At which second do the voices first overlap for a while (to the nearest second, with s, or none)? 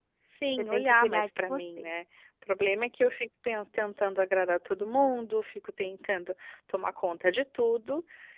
1 s